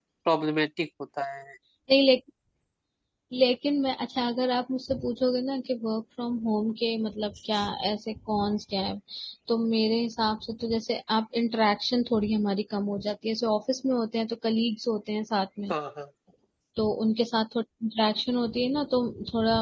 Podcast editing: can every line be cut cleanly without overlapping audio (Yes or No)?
Yes